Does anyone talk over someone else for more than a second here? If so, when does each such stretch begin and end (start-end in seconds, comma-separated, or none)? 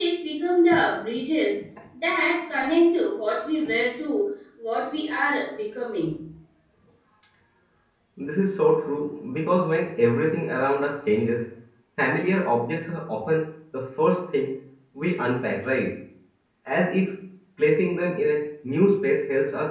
none